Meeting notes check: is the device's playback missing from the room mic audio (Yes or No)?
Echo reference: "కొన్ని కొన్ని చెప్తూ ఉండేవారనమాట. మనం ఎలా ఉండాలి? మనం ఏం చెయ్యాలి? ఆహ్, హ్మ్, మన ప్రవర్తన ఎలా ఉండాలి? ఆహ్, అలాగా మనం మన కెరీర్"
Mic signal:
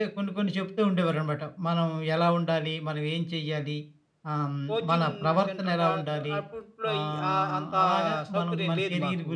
No